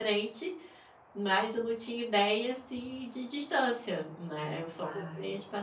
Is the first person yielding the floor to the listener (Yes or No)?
No